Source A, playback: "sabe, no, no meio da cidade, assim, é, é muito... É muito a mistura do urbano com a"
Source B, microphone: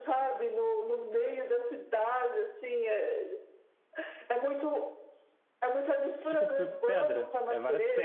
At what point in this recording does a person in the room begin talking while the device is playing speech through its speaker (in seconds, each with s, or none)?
6.3 s